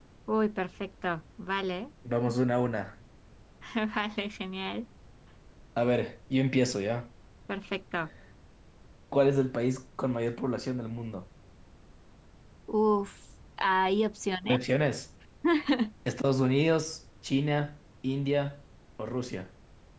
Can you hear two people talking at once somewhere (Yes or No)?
No